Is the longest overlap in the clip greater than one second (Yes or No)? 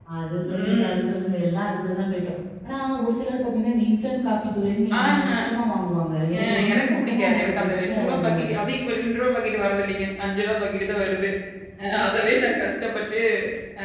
Yes